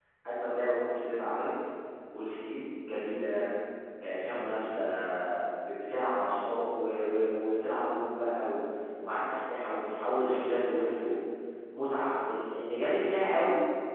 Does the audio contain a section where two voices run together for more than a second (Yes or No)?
No